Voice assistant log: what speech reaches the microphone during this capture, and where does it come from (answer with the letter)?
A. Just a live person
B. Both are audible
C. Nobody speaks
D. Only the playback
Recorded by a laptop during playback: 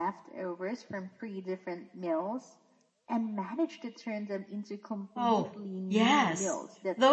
B